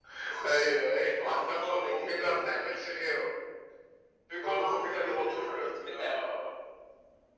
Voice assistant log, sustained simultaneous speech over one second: present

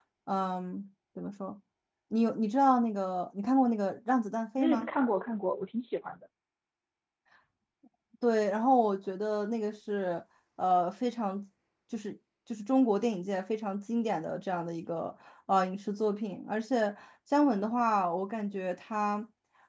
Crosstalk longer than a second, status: none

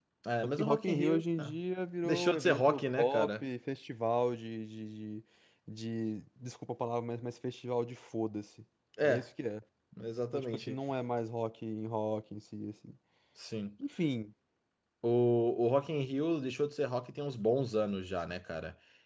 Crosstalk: present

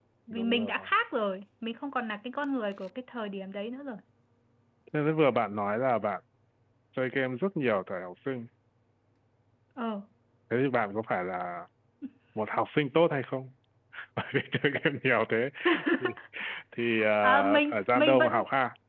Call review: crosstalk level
present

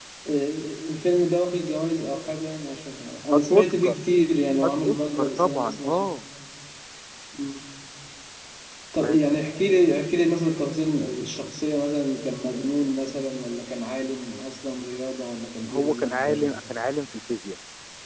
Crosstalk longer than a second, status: present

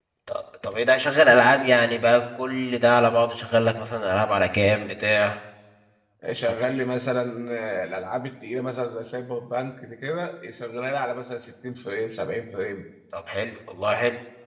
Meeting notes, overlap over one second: none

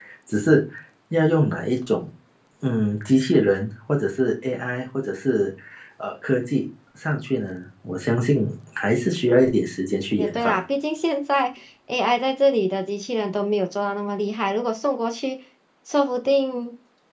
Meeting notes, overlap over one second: none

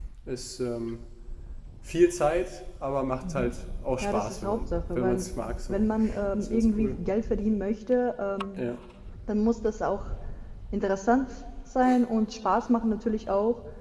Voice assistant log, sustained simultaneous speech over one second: present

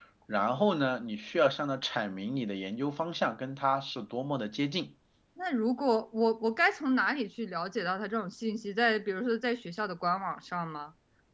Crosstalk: none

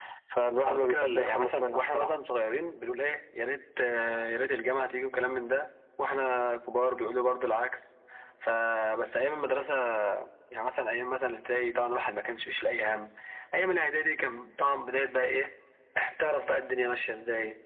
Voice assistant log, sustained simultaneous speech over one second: present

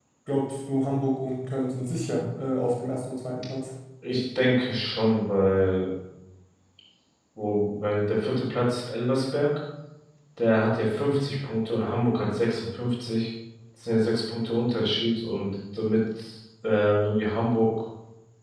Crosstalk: none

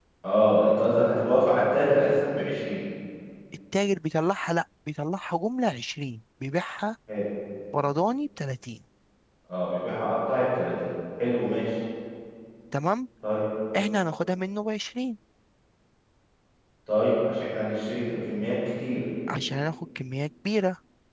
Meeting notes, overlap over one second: none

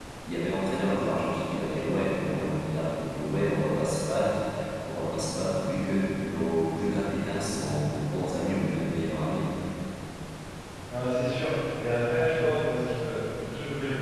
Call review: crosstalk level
none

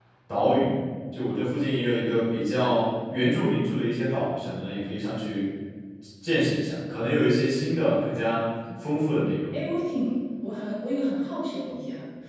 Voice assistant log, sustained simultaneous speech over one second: none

